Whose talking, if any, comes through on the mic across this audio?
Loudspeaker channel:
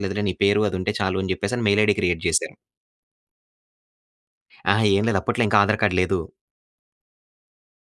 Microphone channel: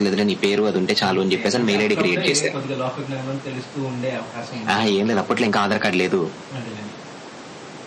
both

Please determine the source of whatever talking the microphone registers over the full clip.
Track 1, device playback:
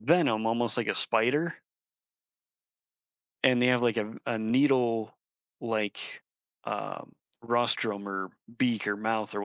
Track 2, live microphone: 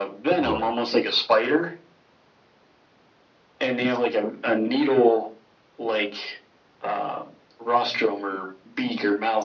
both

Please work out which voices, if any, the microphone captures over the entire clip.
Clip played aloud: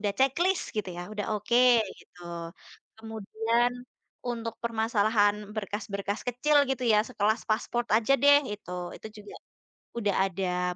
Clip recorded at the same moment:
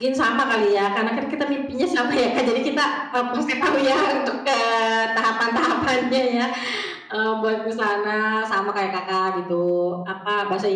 user only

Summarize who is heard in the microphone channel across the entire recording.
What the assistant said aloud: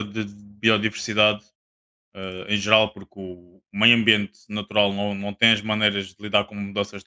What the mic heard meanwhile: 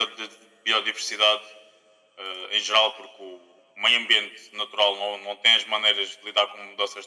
echo only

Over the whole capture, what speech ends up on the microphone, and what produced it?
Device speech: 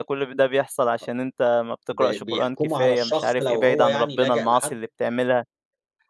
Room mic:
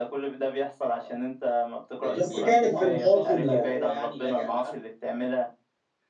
both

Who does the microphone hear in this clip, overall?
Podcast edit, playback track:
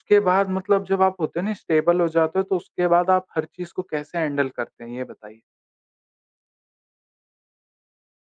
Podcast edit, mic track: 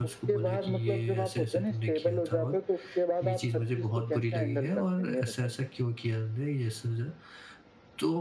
both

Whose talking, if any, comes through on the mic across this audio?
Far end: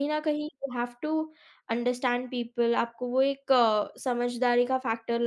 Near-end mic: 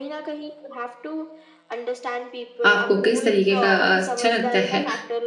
both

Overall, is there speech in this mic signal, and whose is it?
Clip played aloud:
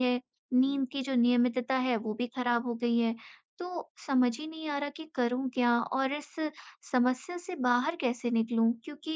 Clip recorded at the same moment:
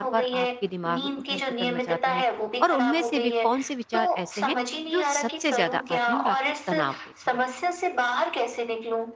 both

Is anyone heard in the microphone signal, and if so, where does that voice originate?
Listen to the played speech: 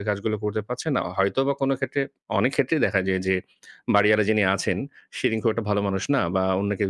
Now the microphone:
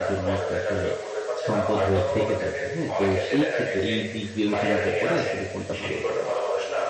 both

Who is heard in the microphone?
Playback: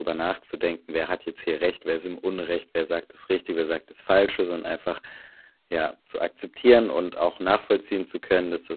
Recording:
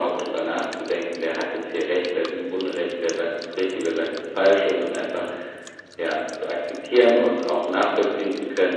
echo only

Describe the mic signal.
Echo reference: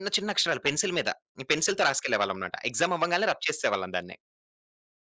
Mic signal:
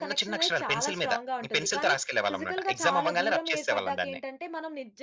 both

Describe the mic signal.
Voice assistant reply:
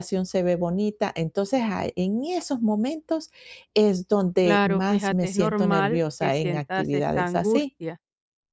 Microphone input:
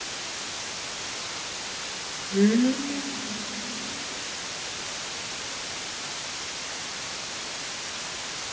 user only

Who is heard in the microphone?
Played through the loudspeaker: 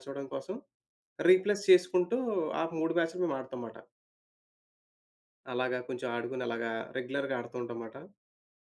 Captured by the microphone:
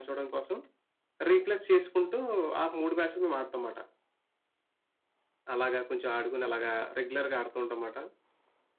echo only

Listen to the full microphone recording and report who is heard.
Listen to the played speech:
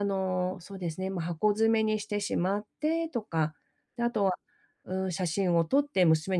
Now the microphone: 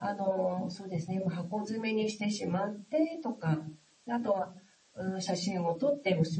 echo only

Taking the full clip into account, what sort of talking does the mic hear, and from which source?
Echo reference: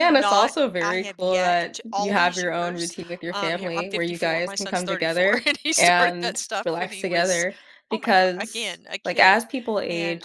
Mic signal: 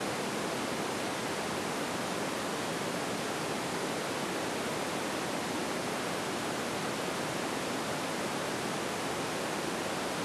neither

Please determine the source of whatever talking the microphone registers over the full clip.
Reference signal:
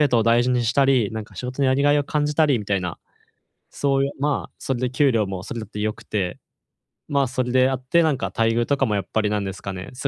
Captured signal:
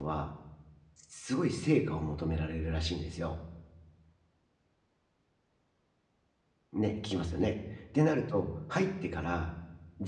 user only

